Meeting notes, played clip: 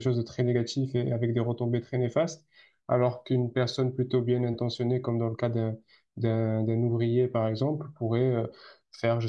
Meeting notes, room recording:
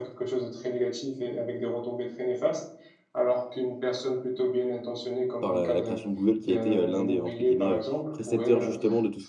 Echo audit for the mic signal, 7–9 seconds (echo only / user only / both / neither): both